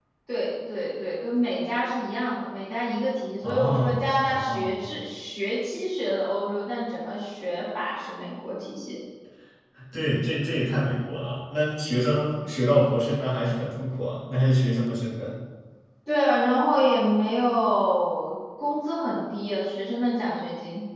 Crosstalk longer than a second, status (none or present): present